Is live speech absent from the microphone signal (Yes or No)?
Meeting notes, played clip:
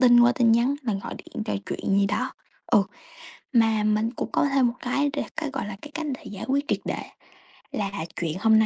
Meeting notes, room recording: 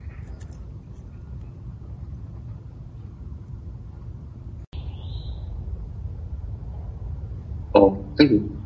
No